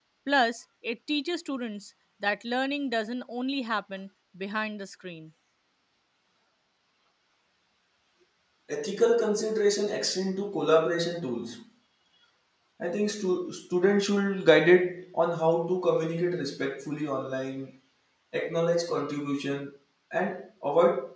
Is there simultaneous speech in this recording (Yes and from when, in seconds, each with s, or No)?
No